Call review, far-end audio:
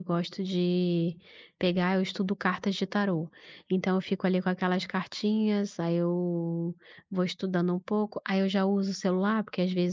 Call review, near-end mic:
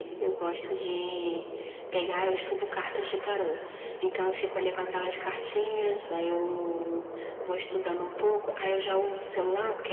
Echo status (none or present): present